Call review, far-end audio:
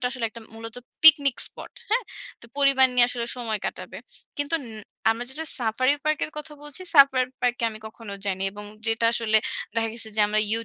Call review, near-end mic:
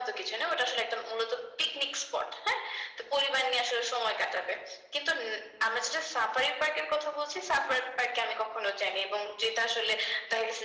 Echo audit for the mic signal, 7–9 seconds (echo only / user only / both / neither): echo only